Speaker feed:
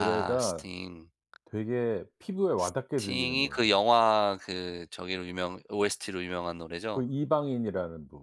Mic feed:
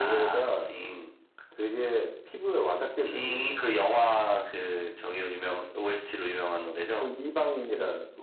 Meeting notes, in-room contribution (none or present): none